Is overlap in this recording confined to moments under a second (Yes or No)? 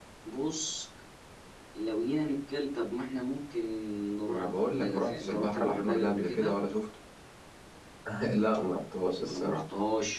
No